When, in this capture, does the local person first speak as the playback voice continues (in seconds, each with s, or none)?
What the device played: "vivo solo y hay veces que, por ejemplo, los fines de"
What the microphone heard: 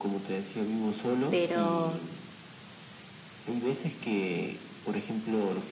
1.3 s